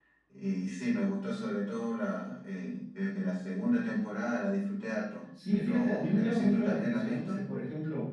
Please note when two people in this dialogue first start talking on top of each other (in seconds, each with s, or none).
5.4 s